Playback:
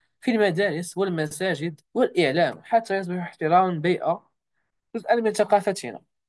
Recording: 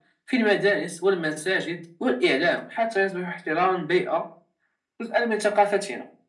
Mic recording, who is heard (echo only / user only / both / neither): echo only